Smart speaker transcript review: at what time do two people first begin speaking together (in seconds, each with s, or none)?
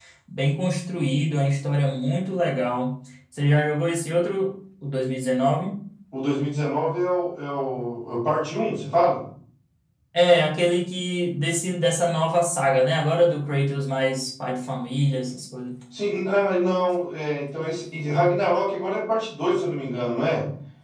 none